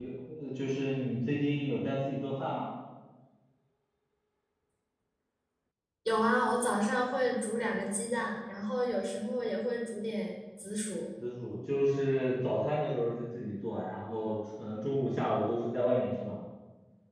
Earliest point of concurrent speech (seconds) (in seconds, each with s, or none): none